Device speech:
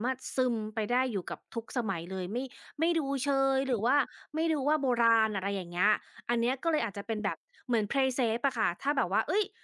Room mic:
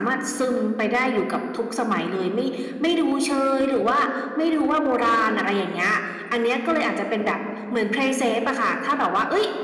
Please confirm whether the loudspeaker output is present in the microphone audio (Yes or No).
Yes